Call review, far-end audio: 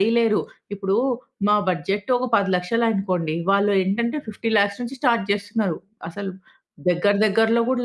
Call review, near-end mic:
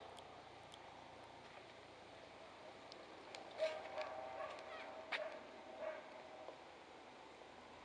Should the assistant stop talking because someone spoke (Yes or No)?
No